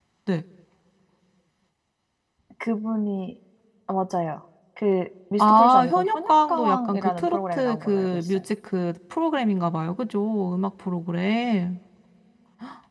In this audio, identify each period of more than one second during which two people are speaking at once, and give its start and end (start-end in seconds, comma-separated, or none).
5.4-8.4